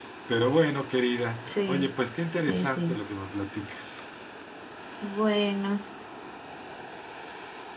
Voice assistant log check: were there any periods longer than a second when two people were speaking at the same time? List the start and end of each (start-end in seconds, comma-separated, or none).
none